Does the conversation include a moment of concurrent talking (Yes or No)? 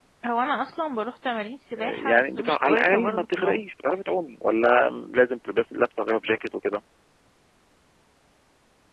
Yes